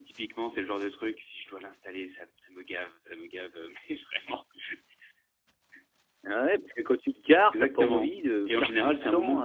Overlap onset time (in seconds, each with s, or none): 7.5 s